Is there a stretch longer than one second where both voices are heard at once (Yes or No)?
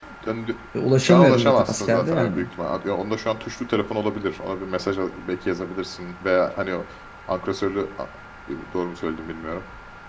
Yes